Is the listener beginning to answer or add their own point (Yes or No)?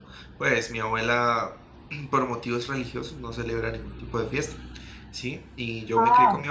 No